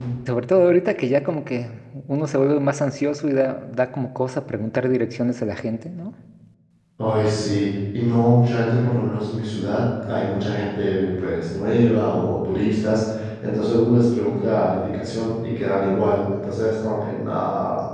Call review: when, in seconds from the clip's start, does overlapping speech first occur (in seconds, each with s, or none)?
none